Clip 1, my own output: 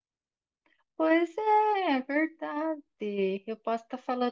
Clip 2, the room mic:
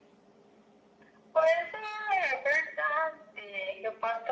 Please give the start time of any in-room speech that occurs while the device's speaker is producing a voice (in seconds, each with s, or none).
none